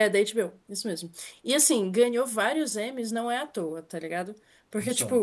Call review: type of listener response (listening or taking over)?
listening